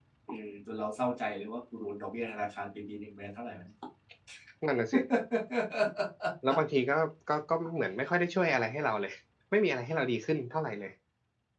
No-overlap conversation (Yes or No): Yes